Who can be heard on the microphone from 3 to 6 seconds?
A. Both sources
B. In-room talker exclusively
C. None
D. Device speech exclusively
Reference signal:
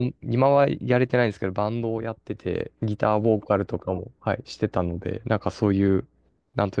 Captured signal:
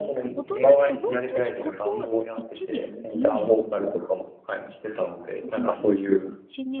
A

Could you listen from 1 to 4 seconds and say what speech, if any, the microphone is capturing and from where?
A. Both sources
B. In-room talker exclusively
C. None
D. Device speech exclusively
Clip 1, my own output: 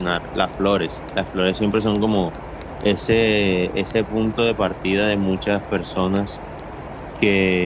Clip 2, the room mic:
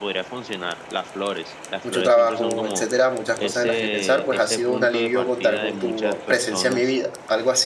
A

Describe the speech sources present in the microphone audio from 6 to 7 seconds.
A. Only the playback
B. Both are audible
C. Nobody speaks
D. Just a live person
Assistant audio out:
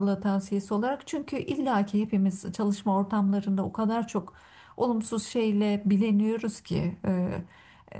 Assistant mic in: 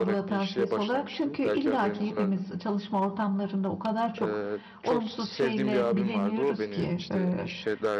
B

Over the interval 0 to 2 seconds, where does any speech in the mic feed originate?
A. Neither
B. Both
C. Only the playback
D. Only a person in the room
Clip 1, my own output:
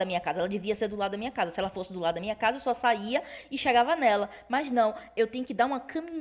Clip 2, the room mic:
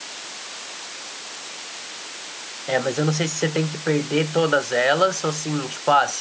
A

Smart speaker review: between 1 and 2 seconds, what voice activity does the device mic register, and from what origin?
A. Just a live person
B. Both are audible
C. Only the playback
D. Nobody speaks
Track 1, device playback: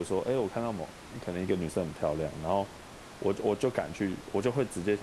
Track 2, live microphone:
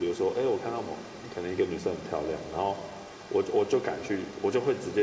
C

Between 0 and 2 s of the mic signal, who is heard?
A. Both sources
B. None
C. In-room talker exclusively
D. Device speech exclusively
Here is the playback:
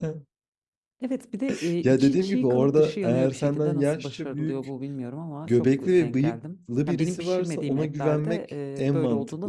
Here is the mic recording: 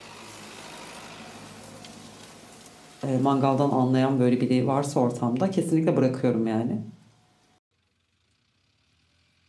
B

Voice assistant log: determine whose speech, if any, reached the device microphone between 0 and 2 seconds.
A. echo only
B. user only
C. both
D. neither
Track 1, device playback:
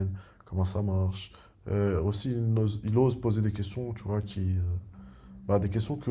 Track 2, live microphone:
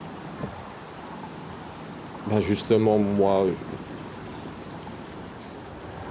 D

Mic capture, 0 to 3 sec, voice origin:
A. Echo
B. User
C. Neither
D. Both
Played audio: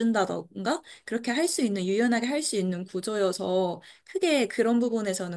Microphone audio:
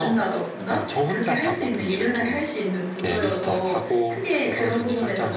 D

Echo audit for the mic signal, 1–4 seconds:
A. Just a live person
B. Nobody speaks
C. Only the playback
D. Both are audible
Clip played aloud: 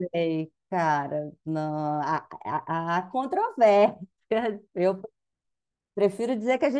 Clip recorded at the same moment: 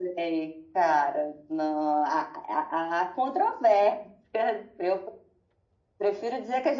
C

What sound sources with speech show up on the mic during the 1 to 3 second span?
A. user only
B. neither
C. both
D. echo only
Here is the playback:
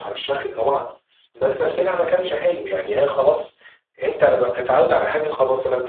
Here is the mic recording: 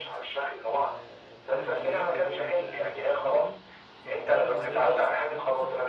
C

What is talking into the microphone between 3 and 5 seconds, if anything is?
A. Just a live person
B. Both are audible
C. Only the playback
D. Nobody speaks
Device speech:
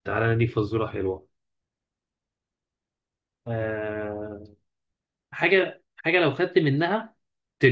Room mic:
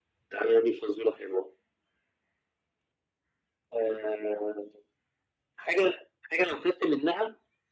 C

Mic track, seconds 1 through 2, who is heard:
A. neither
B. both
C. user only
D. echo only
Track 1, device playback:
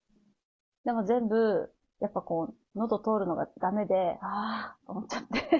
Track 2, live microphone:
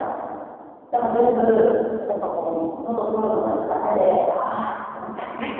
D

